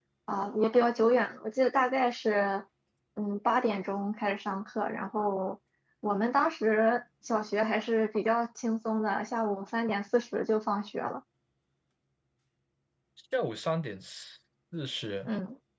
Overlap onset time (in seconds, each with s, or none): none